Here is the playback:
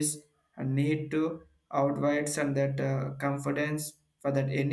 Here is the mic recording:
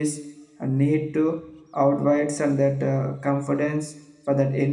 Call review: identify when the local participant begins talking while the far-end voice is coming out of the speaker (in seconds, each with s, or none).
none